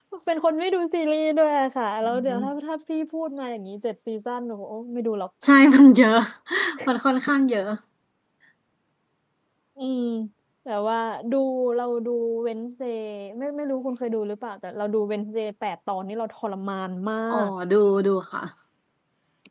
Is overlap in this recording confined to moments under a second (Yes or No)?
Yes